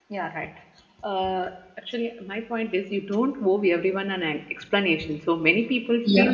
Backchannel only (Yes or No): Yes